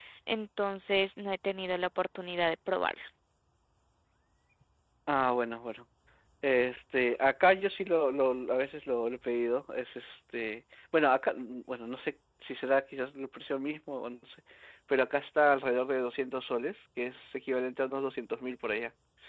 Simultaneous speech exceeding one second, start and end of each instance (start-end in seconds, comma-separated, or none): none